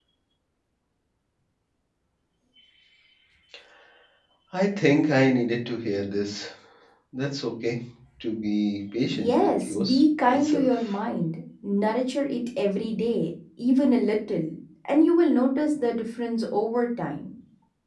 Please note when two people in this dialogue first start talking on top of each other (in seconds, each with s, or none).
9.1 s